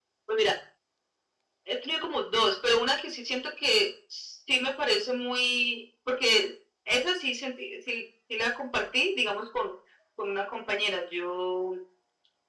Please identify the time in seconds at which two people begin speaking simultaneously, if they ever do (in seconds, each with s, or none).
none